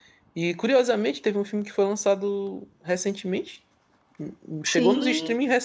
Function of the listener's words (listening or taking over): listening